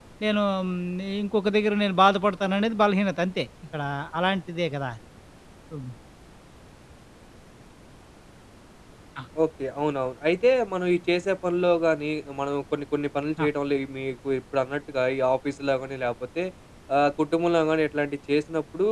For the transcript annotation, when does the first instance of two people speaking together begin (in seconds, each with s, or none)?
none